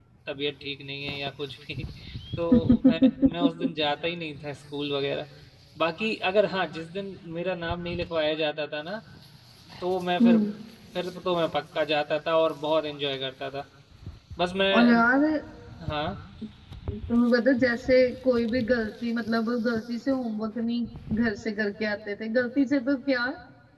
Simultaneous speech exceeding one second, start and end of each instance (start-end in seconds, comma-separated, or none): 2.5-3.7